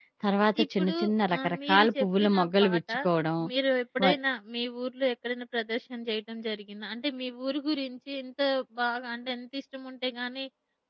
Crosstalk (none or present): present